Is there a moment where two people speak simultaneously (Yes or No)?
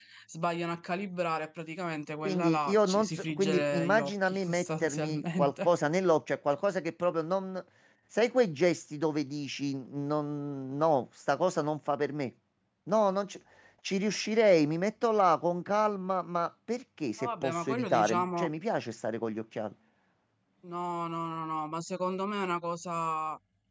Yes